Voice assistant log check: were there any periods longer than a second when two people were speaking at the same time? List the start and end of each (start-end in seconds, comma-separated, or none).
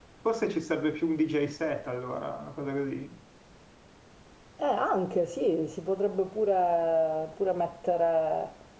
none